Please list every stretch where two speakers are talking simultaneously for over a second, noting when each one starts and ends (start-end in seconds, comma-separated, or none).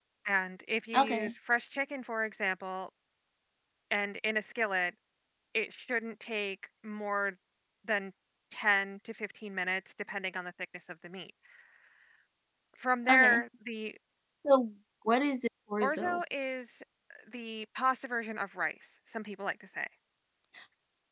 none